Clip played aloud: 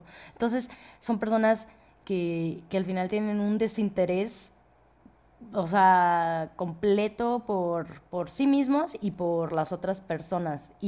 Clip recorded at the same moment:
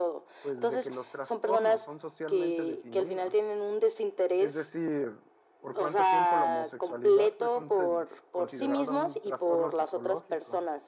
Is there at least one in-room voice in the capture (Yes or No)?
Yes